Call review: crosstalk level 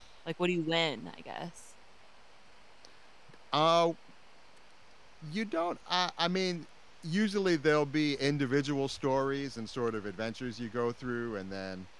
none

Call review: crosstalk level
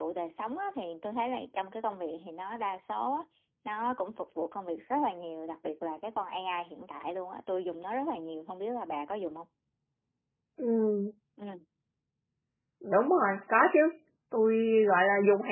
none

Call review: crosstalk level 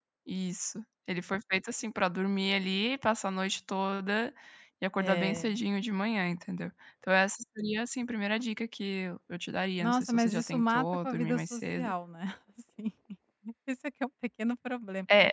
present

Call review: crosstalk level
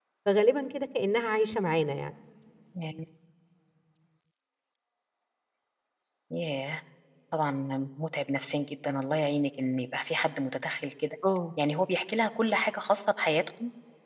none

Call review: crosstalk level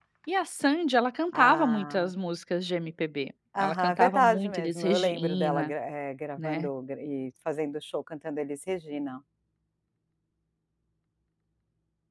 present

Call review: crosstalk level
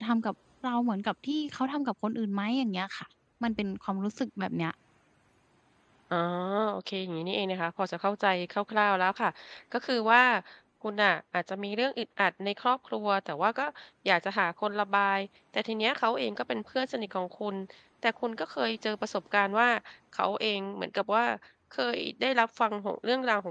none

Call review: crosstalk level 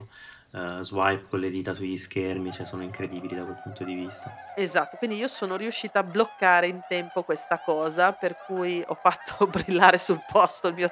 none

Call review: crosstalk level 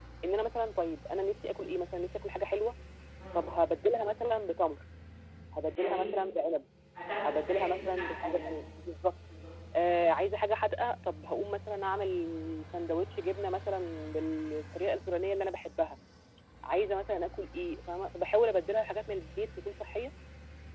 present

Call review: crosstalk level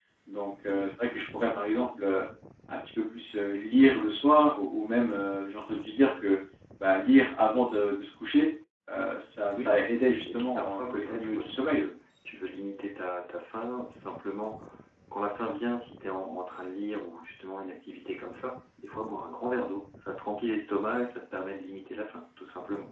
present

